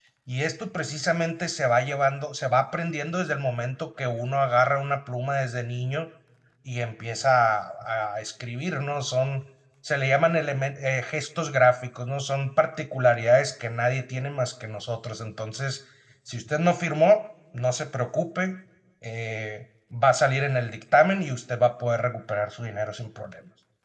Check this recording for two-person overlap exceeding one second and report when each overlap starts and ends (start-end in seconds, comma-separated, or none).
none